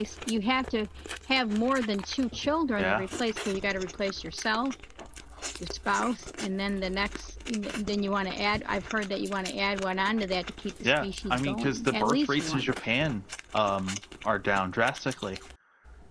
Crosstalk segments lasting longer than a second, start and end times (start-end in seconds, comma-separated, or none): 10.8-12.7